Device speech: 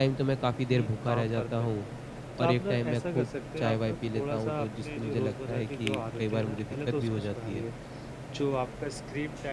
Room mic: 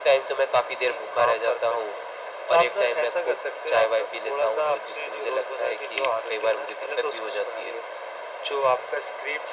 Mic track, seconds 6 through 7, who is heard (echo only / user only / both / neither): echo only